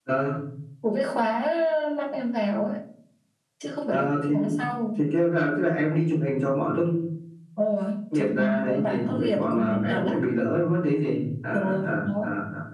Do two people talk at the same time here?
Yes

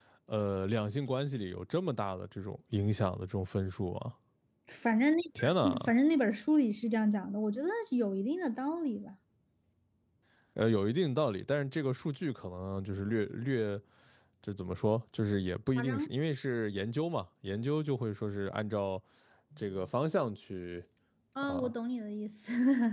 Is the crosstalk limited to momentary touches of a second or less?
Yes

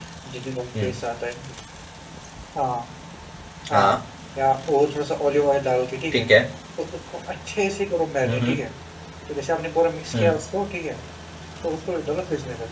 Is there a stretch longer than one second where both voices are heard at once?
No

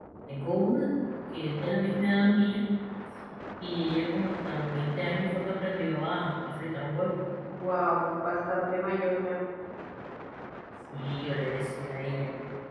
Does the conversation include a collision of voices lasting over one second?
No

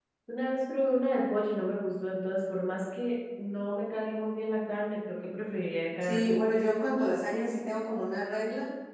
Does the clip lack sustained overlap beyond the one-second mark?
Yes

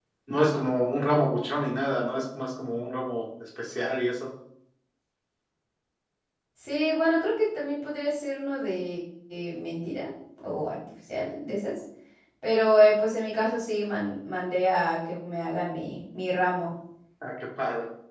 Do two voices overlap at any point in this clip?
No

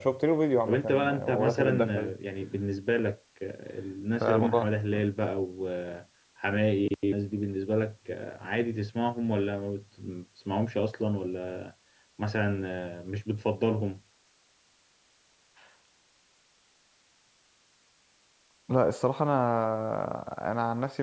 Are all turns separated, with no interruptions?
No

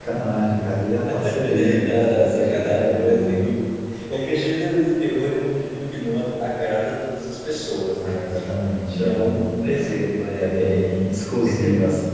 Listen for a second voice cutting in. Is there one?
Yes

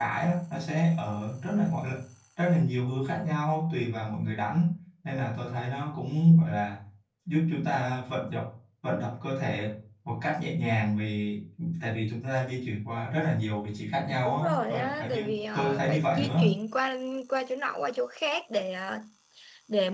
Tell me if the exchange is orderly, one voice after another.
No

